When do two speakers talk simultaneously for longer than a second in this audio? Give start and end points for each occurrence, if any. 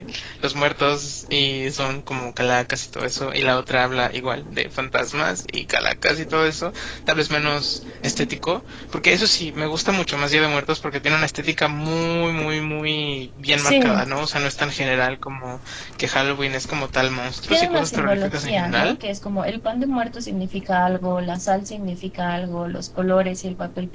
17.5-19.0

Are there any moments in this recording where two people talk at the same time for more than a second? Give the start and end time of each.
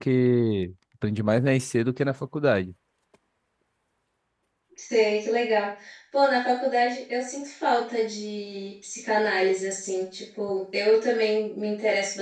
none

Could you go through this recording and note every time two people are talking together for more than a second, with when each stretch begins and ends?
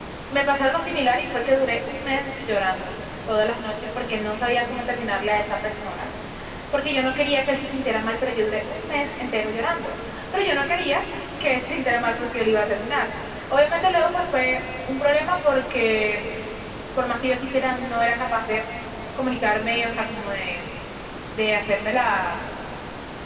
none

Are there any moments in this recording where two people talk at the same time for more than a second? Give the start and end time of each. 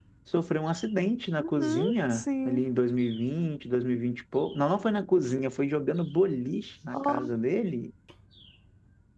1.4-2.6

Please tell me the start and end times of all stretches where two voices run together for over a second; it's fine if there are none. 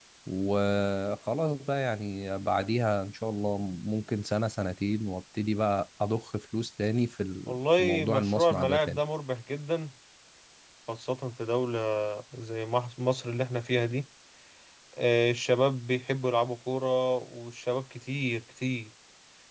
7.5-9.0

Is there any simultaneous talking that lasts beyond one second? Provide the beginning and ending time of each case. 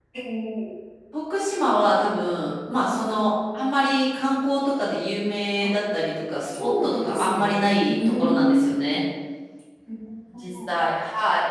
6.6-9.0

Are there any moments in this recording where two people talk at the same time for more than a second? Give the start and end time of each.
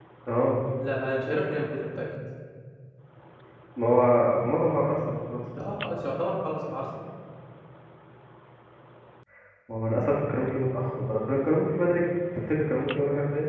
none

